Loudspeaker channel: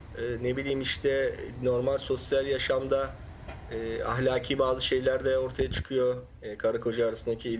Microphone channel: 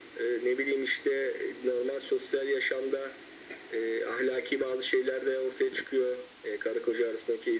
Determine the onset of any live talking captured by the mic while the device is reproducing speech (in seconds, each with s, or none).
none